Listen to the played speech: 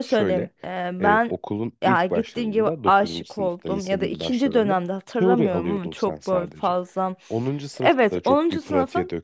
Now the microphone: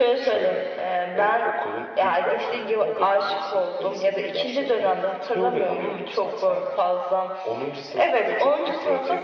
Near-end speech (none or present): none